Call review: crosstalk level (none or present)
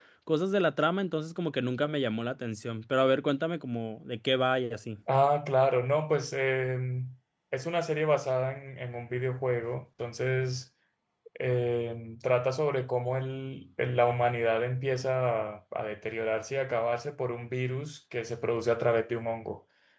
none